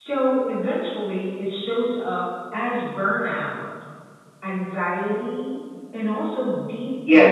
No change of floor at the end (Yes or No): No